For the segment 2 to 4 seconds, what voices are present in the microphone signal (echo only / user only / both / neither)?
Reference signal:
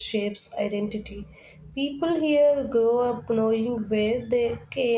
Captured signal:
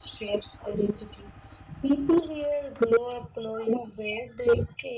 echo only